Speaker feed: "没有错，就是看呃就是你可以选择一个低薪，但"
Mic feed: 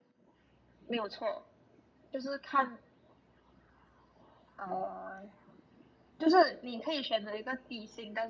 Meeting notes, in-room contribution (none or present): none